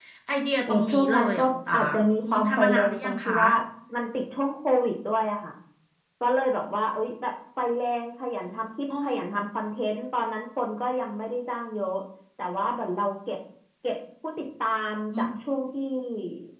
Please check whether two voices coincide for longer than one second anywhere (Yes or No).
Yes